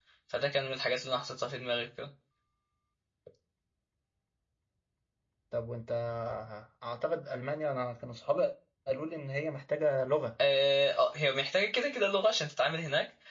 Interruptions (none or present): none